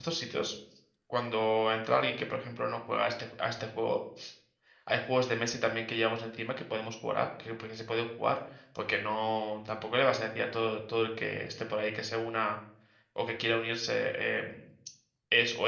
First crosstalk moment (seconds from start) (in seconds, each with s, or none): none